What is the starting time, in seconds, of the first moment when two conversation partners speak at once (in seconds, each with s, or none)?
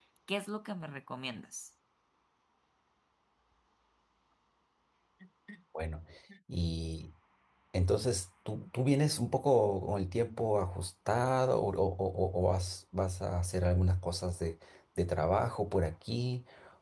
none